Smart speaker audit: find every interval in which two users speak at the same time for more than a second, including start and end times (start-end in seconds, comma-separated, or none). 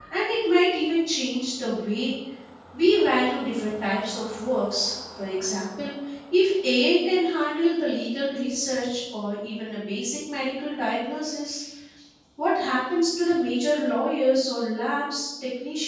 none